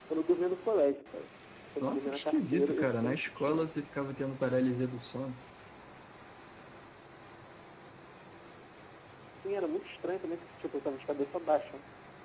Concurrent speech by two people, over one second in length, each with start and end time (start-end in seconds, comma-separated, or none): 1.8-3.7